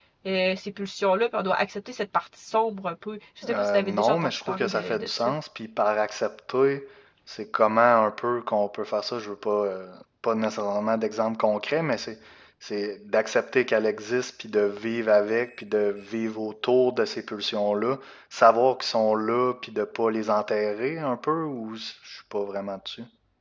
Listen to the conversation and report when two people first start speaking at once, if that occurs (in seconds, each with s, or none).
3.4 s